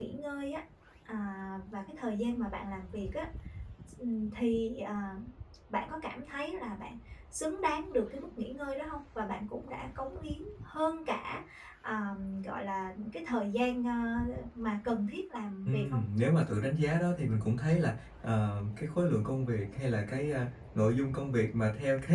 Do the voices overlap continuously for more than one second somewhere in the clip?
No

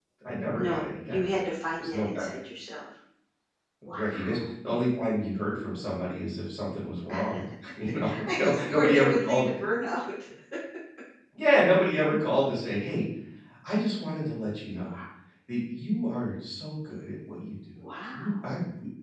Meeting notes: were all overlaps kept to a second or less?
No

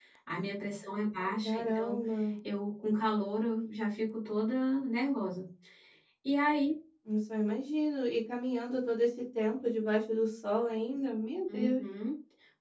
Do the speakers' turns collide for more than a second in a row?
No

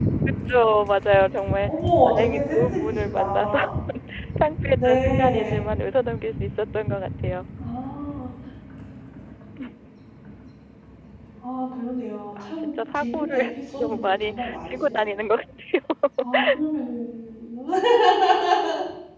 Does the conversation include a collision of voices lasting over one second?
Yes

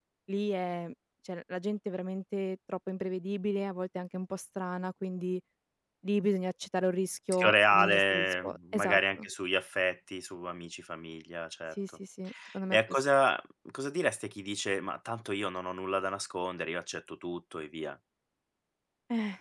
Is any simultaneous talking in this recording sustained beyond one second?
Yes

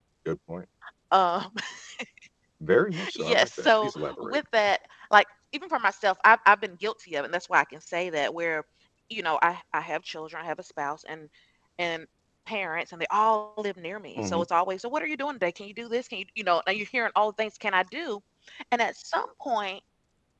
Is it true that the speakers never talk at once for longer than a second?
No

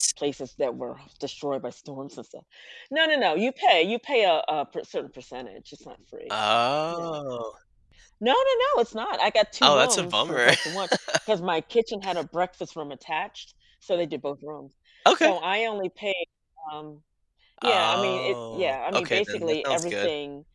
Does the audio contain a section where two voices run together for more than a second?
Yes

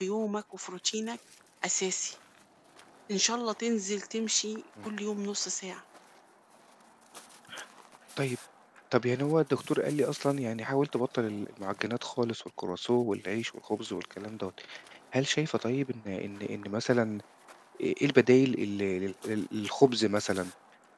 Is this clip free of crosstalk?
Yes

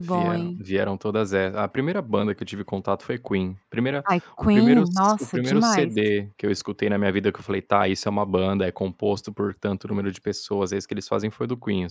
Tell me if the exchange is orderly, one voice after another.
No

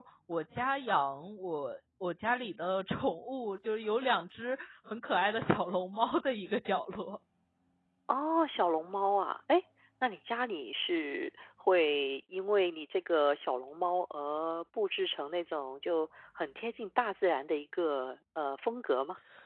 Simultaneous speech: No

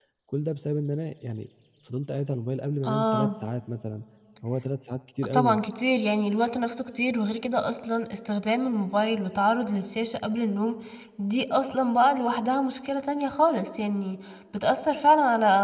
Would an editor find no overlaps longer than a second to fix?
Yes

